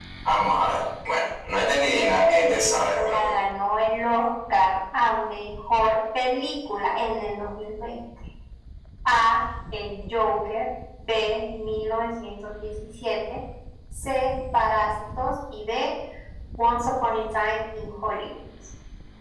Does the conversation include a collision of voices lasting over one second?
Yes, from 1.9 s

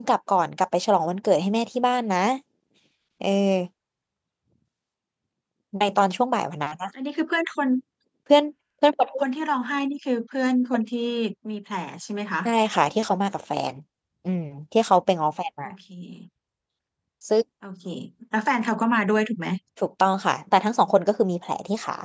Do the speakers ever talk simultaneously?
No

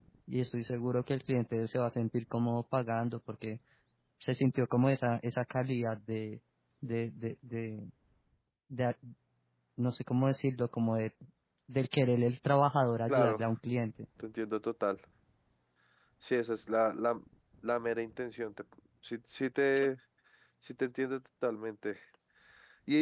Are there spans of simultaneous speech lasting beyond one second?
No

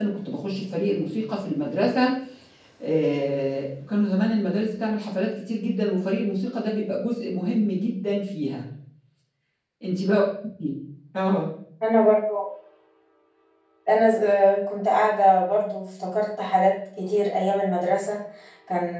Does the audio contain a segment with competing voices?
No

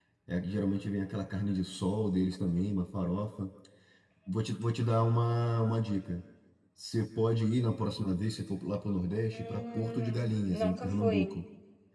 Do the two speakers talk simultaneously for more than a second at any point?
Yes, from 9.3 s

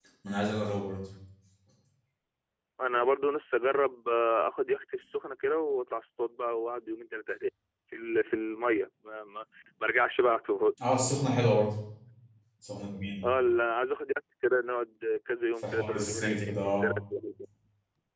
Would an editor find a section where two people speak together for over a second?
Yes, from 15.6 s

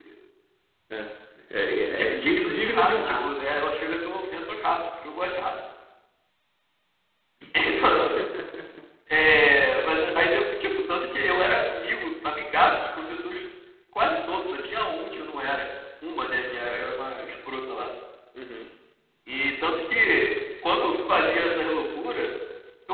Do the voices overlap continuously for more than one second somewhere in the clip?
Yes, from 2.0 s

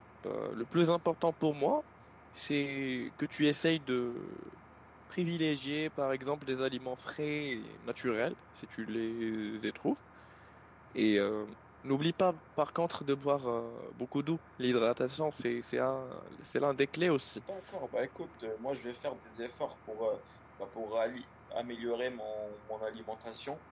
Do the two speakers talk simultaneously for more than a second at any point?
No

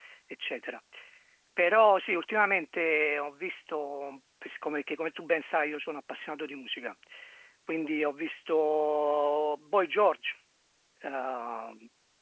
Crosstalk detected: No

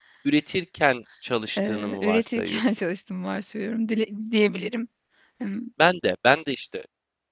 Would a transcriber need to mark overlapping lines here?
Yes, from 1.6 s

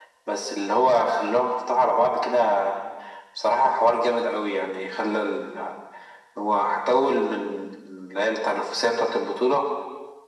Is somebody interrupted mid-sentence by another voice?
No

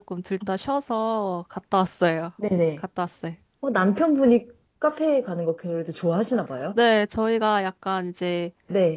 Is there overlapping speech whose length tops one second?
No

